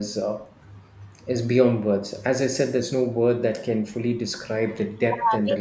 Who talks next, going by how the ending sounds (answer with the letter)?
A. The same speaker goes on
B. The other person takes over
B